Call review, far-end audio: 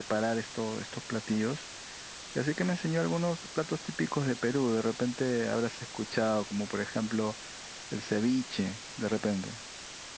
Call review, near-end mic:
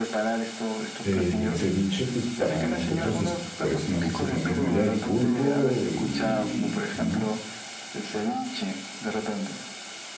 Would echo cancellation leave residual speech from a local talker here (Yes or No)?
Yes